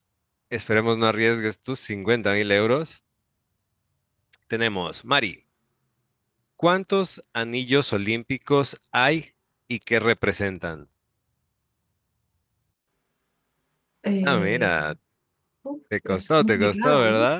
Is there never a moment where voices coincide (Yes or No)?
No